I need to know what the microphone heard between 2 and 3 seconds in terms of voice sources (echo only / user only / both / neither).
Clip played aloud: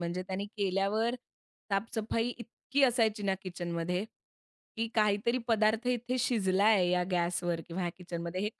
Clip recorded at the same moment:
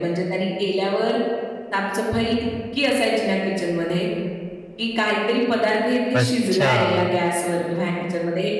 echo only